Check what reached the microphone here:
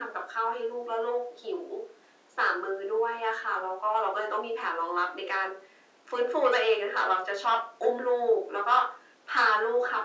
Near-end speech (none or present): none